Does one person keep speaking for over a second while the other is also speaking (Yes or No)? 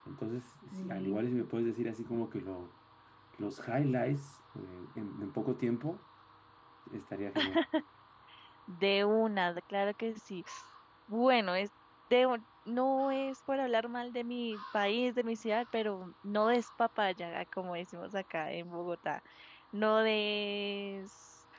No